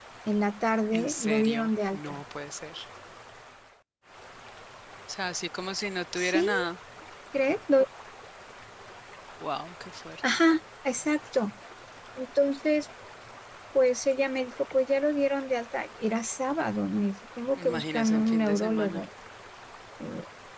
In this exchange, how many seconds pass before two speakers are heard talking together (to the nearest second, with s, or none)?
1 s